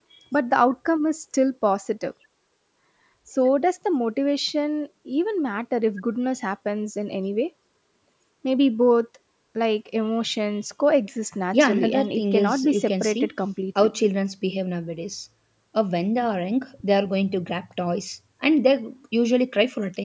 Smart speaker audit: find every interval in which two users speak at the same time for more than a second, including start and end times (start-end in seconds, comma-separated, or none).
11.5-13.2